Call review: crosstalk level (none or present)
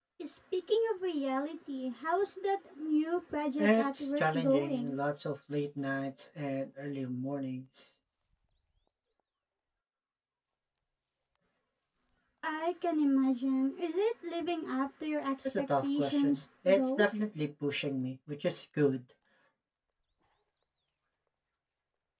present